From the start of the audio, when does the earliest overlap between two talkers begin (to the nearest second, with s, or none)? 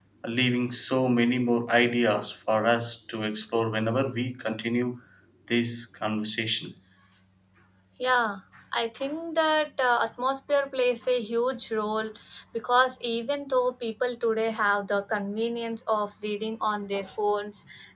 none